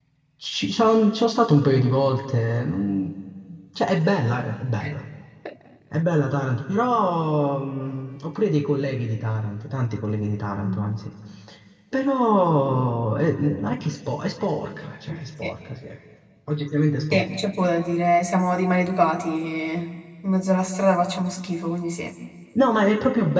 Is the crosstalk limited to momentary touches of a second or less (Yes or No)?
Yes